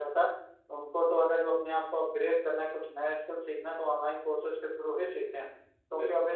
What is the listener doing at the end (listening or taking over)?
listening